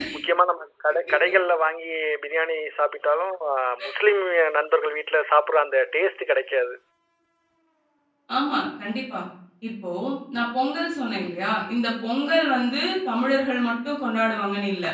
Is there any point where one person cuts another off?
No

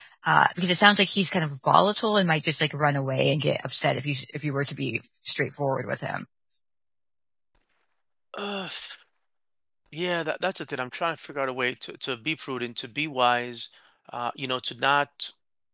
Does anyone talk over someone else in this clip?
No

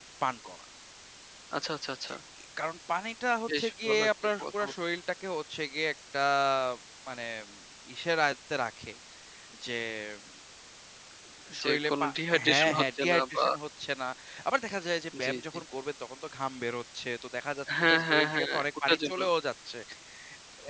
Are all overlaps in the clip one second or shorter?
No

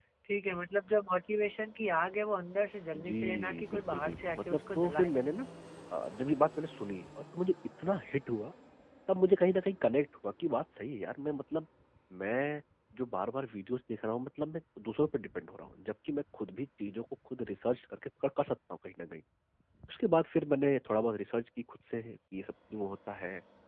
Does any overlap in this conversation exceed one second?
Yes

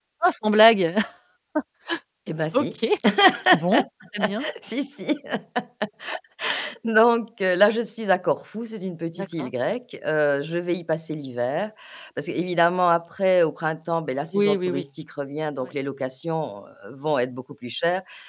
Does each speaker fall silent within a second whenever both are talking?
Yes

